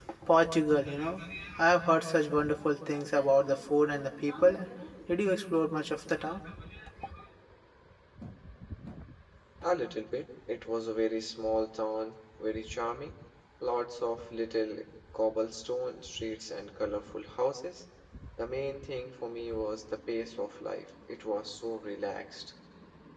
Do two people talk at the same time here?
No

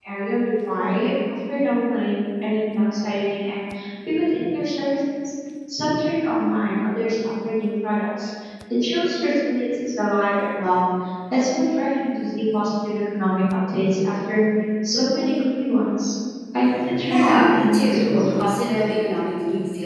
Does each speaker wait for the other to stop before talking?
No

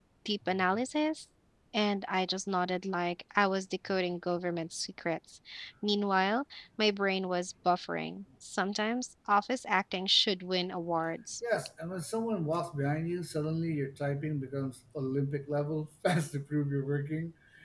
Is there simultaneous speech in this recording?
No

